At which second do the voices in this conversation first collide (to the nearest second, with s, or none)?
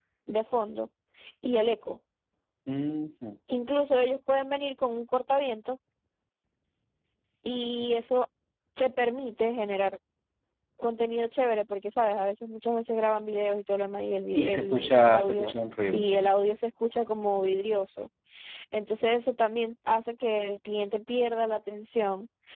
14 s